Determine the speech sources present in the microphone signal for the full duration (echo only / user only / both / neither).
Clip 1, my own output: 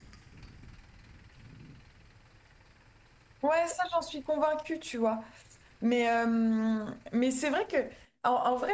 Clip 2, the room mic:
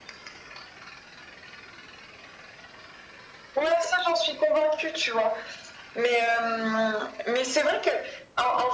echo only